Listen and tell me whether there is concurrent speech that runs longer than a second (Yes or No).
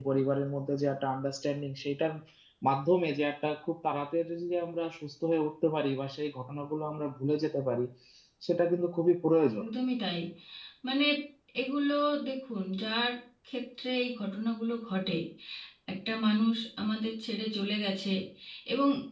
No